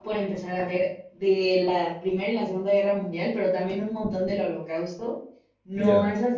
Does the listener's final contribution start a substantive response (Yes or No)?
No